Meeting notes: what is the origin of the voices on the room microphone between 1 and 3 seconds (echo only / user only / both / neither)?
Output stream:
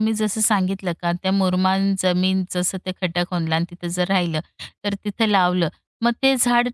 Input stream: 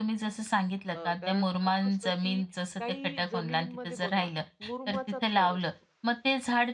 both